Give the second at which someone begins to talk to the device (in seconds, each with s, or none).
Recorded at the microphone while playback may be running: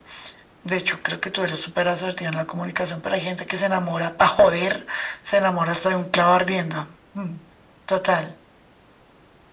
none